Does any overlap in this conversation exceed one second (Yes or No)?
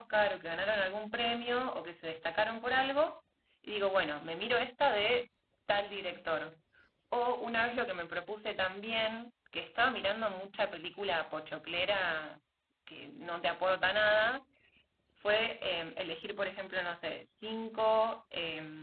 No